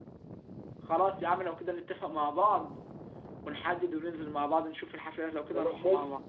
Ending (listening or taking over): taking over